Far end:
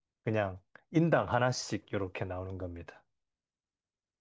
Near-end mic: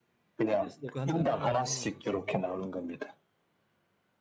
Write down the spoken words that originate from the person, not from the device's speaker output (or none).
그래서도 간단하게 해 먹을 수 있습니다.